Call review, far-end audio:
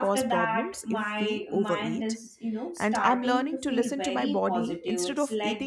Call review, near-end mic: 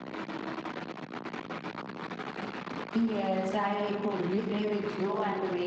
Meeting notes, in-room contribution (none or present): present